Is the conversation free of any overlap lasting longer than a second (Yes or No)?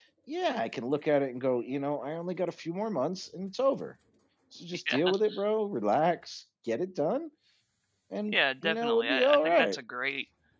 No